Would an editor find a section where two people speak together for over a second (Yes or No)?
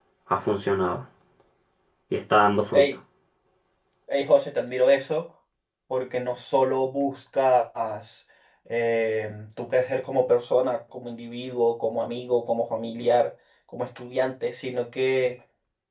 No